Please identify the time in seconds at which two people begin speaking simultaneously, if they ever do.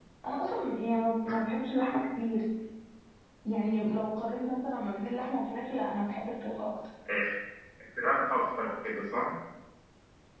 none

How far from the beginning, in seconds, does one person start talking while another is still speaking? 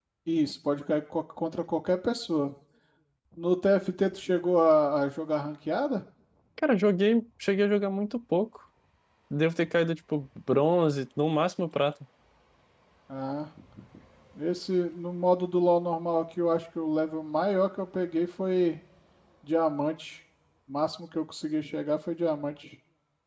none

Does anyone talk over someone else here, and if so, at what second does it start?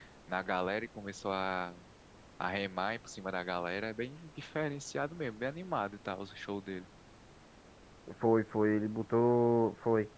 none

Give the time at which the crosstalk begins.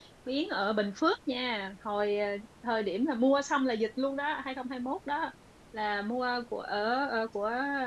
none

